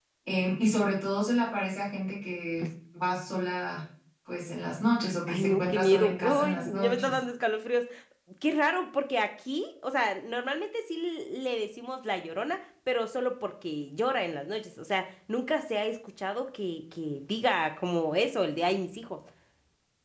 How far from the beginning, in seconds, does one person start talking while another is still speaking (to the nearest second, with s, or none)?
5 s